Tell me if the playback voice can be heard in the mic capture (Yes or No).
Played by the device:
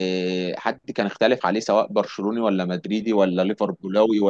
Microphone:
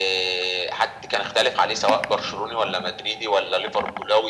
Yes